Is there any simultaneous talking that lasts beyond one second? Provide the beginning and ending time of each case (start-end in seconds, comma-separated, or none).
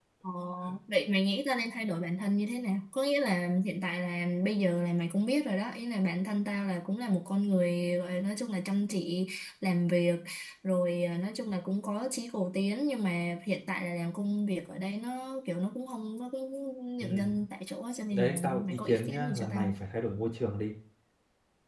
18.1-19.8